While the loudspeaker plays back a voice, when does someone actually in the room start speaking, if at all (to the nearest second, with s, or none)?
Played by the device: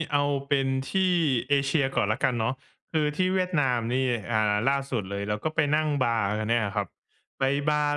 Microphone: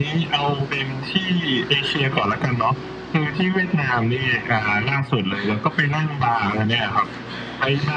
none